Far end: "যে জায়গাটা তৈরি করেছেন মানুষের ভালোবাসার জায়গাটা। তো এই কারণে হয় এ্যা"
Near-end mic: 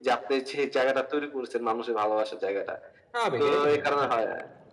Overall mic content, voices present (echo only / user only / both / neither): both